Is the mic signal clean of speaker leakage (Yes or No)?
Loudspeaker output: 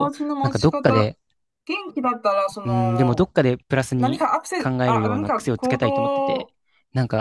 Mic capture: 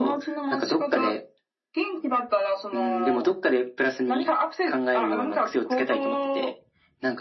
No